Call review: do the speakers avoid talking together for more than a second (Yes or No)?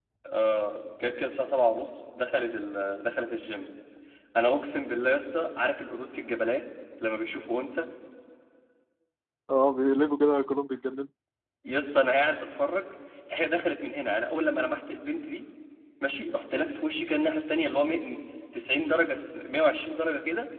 Yes